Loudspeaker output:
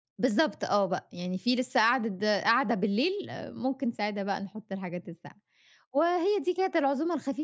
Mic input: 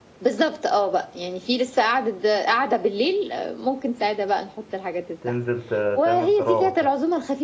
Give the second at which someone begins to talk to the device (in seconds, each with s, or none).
5.2 s